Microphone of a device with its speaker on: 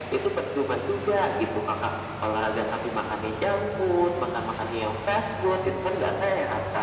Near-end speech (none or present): none